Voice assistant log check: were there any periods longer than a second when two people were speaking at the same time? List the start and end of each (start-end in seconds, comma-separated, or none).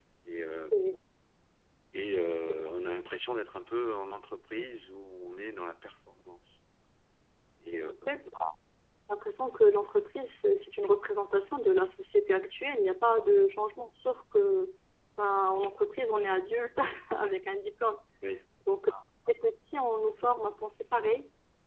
none